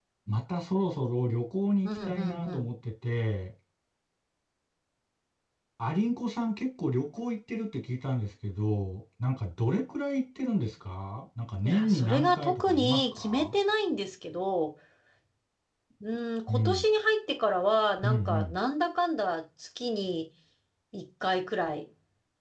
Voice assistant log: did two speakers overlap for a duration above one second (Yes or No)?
Yes